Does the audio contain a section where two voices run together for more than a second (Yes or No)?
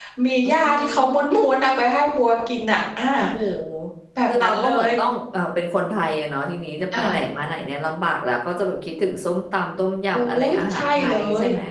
Yes